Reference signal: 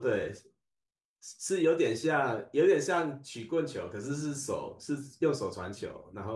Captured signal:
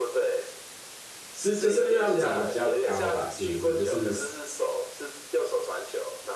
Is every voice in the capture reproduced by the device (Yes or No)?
No